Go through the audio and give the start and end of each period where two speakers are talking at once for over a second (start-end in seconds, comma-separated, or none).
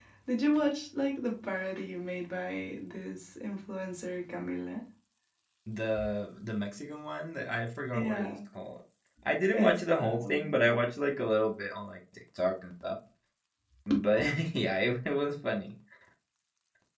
9.5-10.8